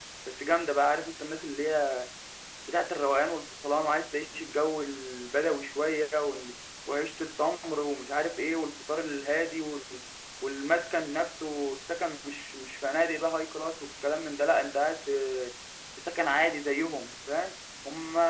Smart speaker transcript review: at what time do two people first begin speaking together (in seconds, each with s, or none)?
none